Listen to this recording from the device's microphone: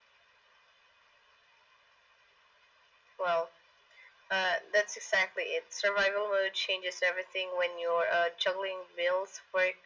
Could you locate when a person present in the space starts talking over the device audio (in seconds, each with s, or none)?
none